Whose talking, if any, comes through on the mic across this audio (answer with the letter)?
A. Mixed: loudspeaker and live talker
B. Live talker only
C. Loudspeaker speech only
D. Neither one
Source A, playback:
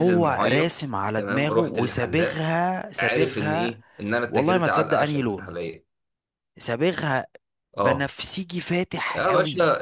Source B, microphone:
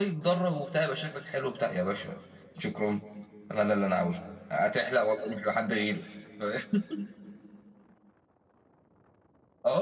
B